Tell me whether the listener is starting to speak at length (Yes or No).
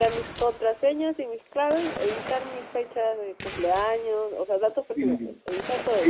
Yes